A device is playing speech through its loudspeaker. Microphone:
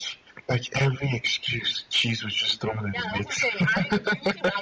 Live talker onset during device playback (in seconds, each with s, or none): none